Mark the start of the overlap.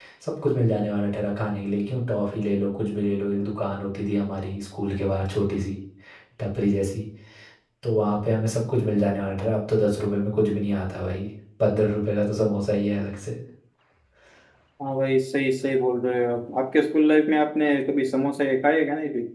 none

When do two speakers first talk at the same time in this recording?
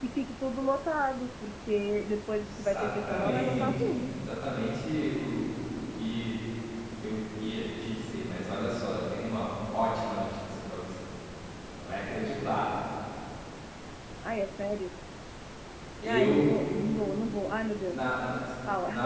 2.4 s

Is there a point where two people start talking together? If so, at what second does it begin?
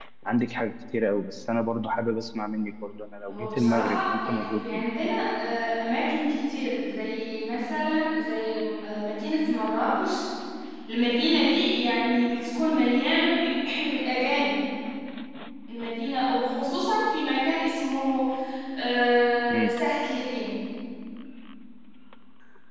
3.3 s

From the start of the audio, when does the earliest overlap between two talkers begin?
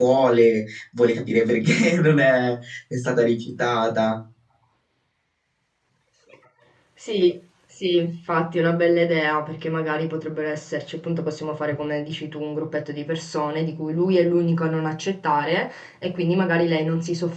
none

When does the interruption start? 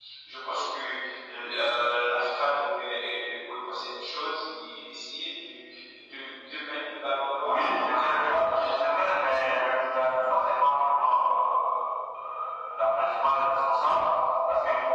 7.4 s

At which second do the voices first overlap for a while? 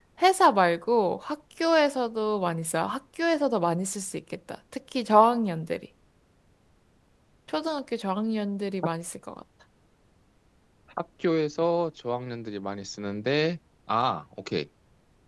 none

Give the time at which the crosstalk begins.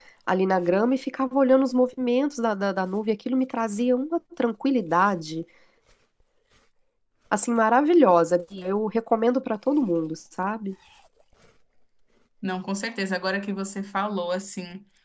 none

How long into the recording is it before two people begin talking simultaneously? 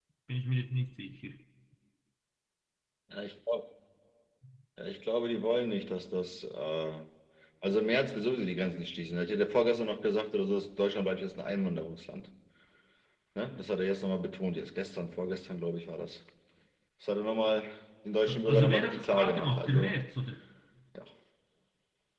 18.4 s

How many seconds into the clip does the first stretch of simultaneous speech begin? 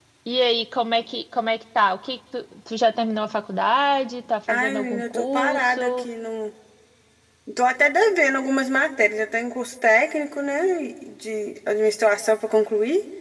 4.5 s

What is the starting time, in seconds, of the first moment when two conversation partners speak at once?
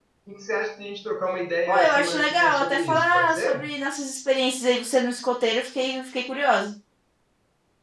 1.7 s

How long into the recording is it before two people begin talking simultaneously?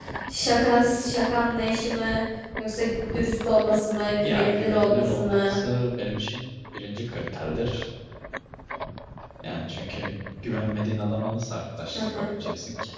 4.2 s

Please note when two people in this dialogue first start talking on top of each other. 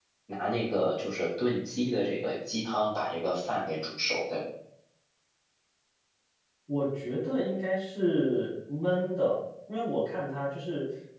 none

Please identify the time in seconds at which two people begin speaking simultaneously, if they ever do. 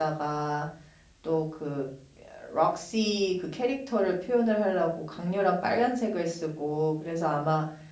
none

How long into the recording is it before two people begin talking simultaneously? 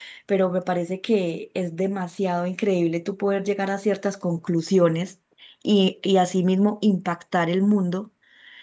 none

